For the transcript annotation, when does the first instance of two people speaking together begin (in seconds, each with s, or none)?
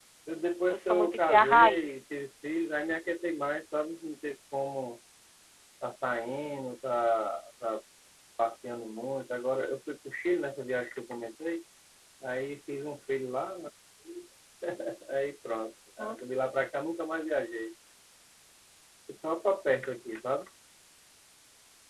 0.7 s